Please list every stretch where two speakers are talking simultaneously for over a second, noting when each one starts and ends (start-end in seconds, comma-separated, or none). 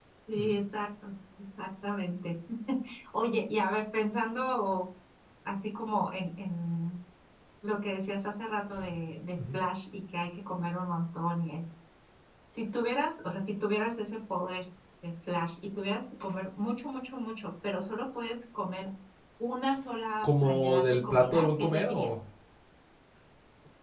20.2-22.1